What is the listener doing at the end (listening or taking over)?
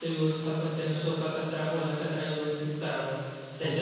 listening